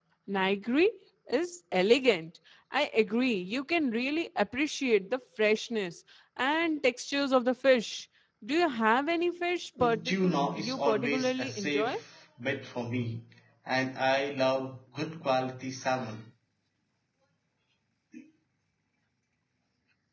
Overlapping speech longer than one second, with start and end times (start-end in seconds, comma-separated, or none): 9.8-12.0